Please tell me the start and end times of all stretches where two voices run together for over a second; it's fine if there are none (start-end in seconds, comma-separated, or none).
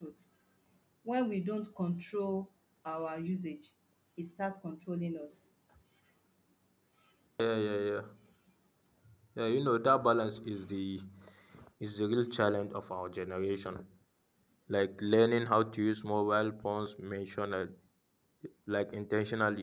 none